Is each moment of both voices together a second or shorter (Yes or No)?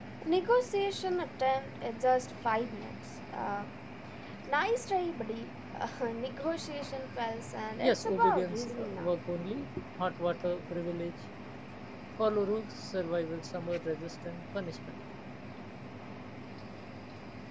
No